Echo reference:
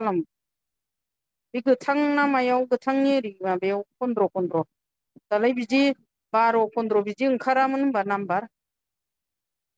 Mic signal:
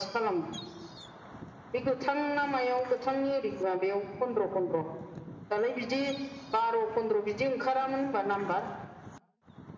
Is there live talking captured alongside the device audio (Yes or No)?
No